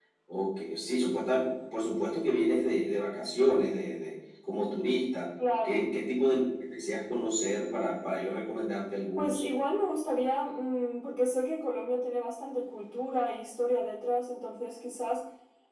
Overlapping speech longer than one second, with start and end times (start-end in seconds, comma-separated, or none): none